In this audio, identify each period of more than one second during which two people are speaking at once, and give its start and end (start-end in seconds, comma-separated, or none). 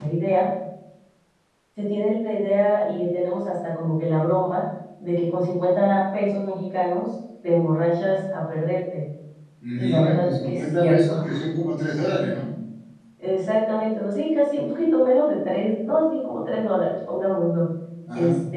9.8-11.1